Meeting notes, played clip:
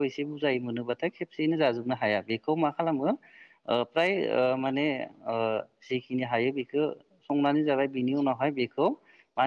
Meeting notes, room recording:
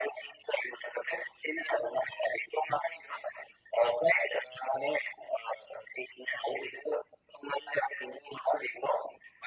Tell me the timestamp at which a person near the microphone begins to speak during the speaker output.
none

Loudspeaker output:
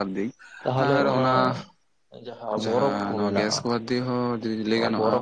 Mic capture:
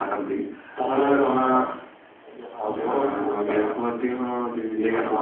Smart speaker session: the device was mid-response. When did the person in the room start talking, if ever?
none

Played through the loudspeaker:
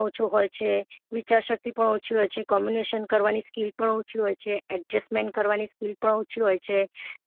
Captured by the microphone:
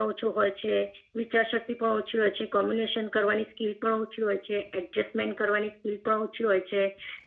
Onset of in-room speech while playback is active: none

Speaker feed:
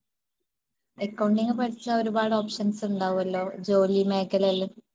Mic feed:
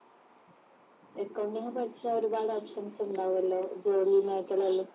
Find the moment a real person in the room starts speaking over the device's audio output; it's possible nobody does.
none

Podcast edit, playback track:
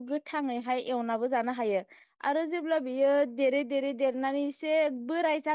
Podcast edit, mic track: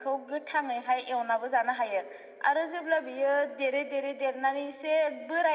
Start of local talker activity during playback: none

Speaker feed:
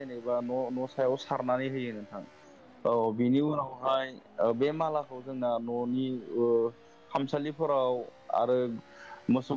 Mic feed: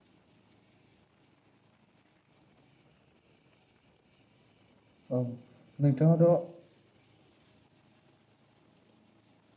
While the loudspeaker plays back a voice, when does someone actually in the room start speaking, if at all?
5.1 s

